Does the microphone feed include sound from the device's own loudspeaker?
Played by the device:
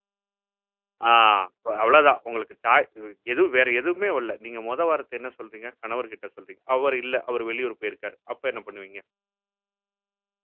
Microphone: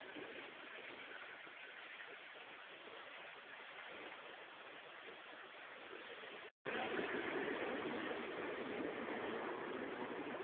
No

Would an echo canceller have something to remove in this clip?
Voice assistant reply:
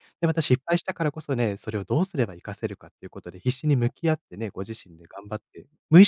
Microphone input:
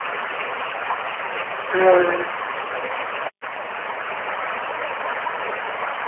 No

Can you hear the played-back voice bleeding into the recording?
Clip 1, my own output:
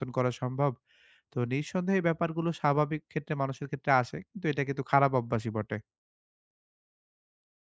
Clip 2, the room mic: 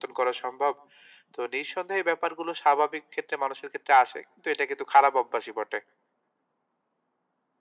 Yes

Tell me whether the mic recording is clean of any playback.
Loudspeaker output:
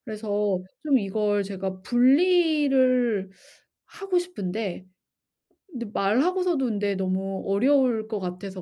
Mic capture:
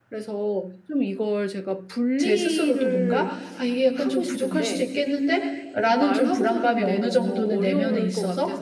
No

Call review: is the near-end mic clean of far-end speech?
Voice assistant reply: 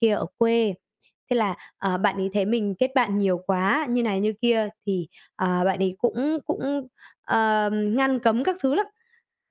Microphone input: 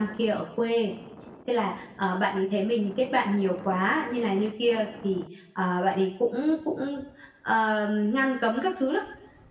No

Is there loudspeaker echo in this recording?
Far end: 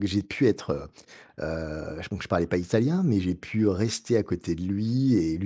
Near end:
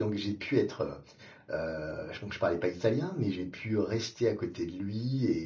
Yes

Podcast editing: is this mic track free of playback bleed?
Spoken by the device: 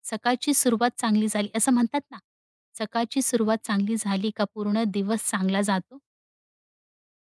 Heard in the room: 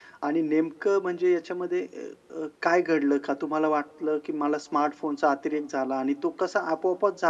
Yes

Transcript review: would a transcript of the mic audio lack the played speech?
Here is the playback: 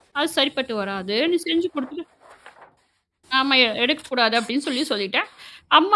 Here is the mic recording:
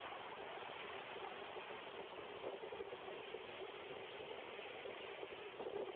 Yes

